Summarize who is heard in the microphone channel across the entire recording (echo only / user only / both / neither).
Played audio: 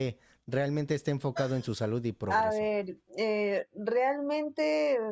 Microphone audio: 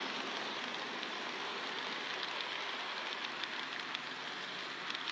neither